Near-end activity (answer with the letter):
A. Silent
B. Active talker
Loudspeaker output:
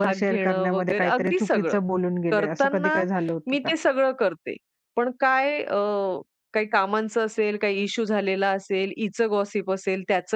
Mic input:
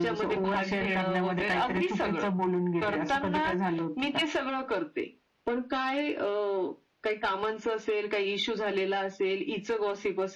A